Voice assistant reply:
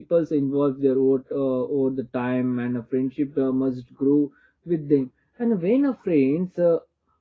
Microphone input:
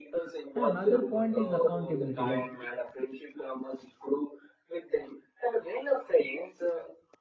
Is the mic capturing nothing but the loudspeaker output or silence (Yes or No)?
No